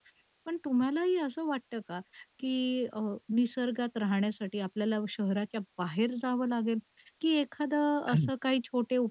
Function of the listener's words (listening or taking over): listening